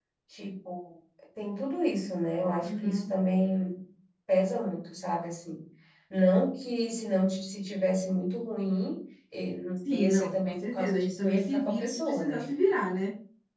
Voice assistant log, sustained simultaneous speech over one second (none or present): present